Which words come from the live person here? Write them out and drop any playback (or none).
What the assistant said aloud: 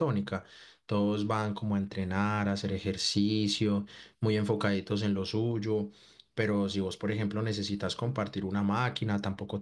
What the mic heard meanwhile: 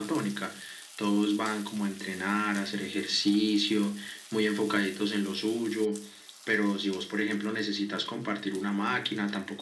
none